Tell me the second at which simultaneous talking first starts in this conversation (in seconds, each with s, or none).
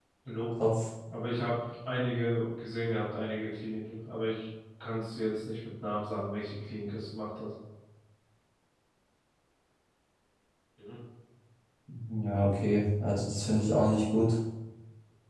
none